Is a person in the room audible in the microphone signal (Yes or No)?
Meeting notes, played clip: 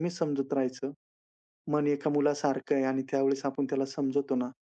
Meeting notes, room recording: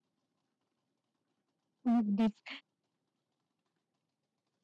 Yes